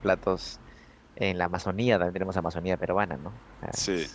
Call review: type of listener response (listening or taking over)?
listening